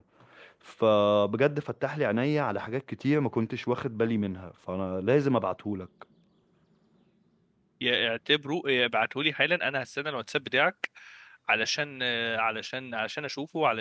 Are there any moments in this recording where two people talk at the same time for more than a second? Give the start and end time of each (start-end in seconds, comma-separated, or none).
none